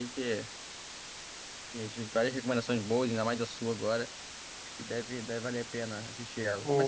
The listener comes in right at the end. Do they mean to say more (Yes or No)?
No